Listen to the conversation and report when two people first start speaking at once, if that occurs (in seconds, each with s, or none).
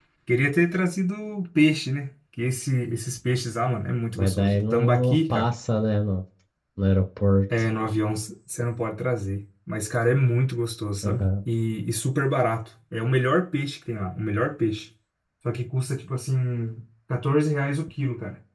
4.2 s